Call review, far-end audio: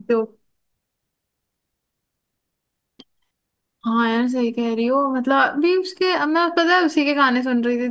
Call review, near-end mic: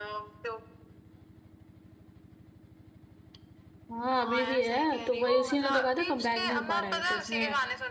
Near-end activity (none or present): present